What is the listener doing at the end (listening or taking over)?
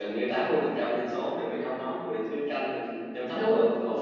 listening